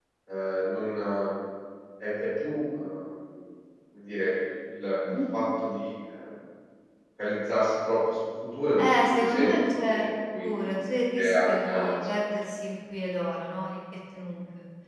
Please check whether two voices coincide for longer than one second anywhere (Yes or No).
Yes